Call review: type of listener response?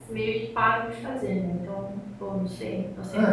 taking over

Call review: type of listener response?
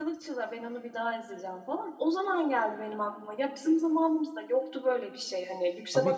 listening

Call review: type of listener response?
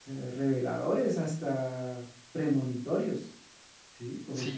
taking over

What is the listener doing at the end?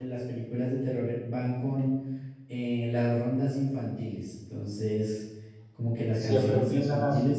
taking over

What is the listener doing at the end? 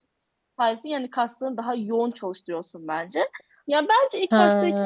listening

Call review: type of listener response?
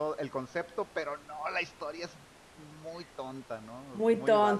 taking over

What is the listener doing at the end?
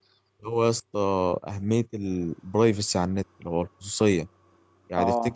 listening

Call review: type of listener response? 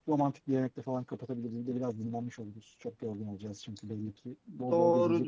taking over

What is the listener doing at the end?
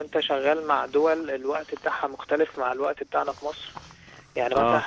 listening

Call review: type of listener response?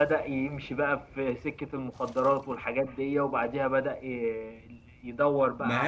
listening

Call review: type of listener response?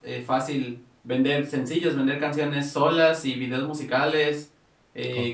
listening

